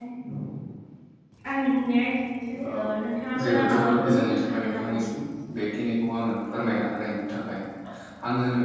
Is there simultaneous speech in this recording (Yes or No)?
Yes